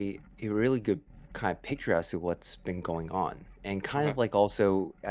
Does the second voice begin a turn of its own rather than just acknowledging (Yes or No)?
No